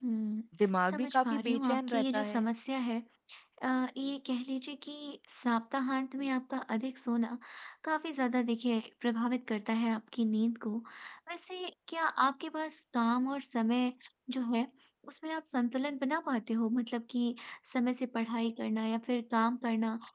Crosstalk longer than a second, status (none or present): present